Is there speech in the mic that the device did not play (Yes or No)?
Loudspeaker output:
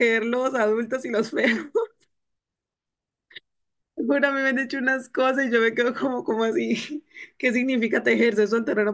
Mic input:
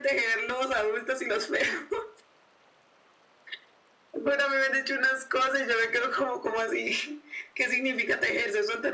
No